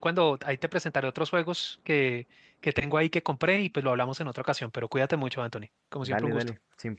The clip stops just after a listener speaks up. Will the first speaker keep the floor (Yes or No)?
No